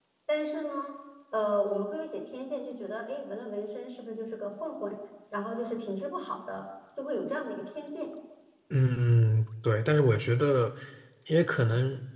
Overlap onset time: none

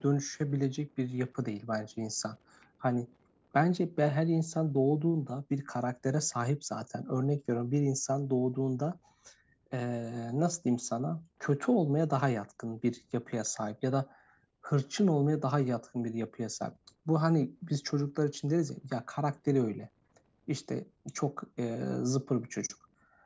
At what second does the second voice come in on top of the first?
none

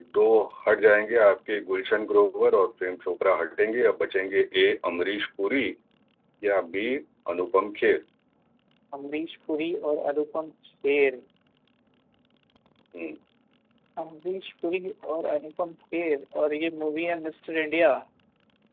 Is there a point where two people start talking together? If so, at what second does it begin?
none

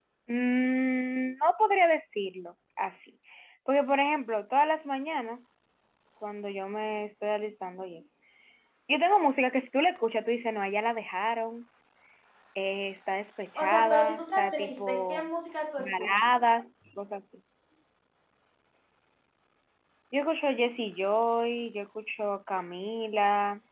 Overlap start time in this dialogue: 14 s

